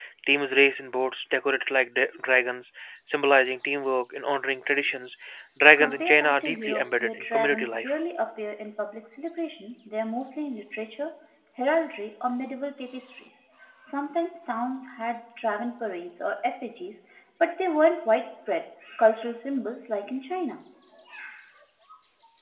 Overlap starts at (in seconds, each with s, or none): 5.8 s